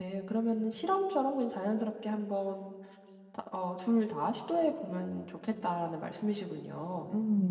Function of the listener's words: taking over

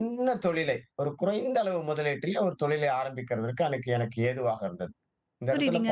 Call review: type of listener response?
taking over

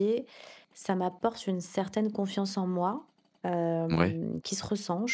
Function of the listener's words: listening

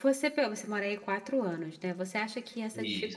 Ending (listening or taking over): listening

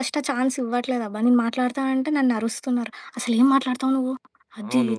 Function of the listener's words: taking over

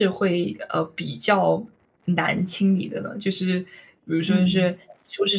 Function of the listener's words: listening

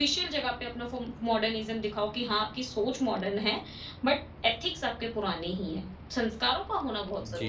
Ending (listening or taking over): taking over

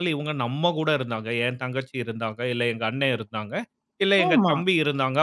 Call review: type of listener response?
listening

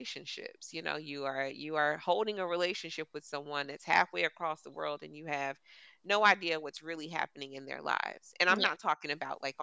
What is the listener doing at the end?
listening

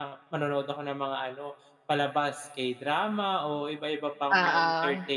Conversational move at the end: listening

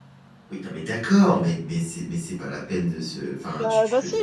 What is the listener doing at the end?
taking over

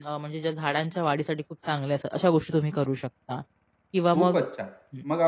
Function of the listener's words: taking over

